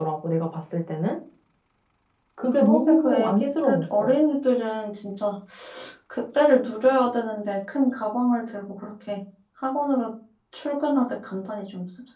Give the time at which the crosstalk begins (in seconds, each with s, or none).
2.6 s